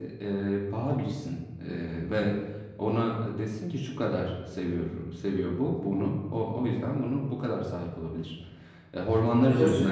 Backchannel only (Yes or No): No